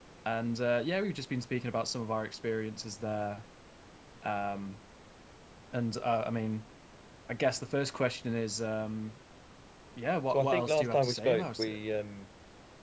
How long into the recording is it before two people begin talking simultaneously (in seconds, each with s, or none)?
10.3 s